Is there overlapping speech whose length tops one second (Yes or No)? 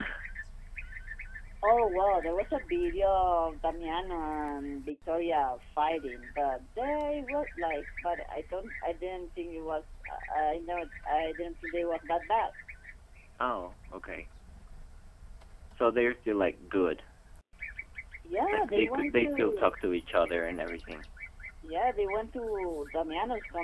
Yes